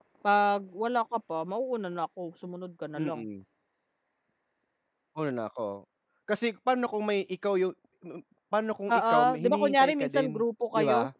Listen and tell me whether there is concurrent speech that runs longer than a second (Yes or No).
Yes